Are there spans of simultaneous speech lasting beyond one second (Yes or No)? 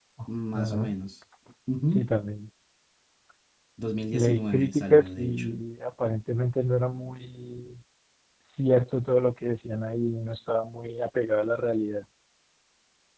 Yes